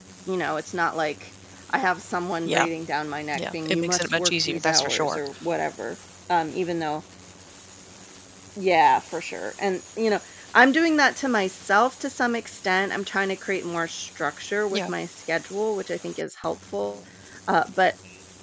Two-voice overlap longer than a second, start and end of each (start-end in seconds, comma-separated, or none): 3.3-5.2